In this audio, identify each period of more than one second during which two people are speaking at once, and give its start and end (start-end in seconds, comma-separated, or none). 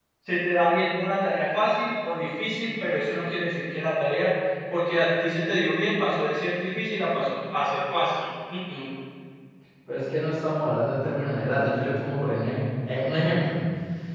none